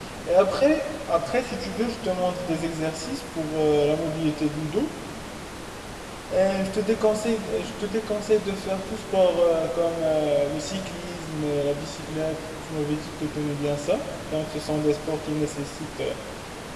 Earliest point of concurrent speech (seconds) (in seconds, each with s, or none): none